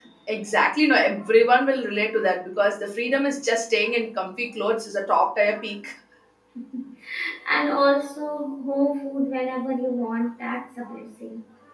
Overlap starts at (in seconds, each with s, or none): none